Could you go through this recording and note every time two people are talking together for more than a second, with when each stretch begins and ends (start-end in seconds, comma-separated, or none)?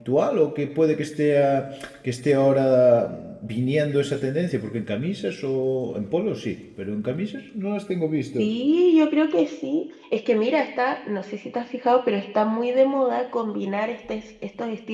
none